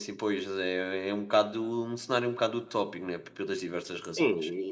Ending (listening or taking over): taking over